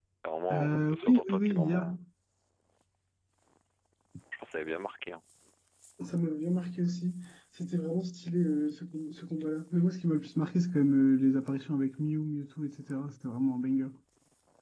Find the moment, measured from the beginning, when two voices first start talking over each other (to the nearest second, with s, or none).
1 s